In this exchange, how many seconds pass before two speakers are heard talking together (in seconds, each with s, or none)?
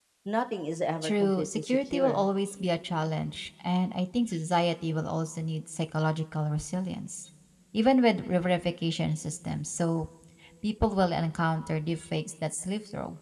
1.0 s